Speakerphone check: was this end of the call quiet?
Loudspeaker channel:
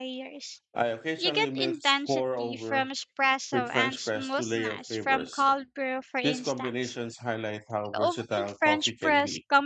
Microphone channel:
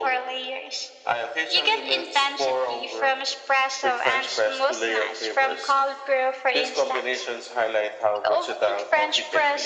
Yes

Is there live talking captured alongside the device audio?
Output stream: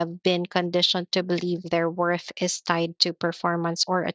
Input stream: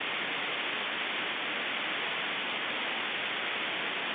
No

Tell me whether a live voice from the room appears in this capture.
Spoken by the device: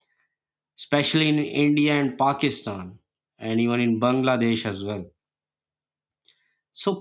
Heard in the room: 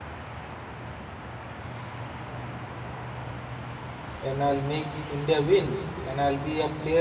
Yes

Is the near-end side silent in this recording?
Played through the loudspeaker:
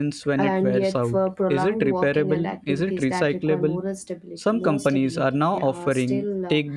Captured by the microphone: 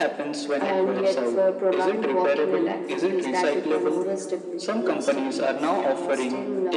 No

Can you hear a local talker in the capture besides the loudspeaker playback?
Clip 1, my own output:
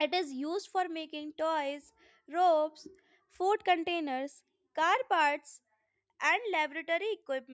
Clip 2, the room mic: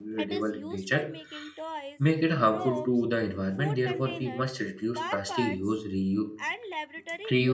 Yes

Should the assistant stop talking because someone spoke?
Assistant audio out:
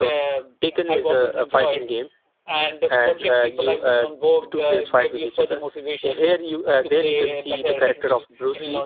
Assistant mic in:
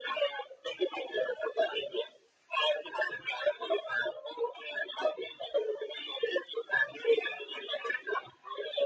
No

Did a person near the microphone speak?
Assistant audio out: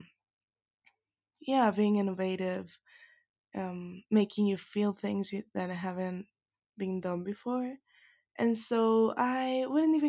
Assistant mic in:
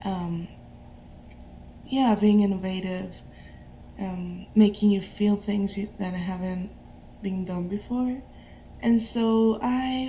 No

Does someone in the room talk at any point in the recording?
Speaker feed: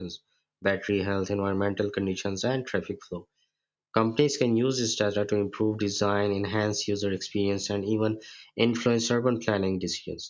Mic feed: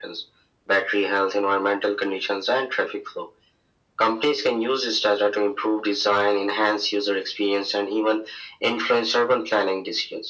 No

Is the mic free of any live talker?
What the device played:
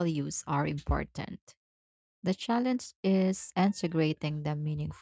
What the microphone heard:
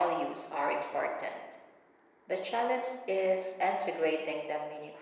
Yes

